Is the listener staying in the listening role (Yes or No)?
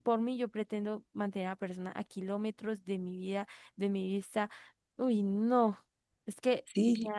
No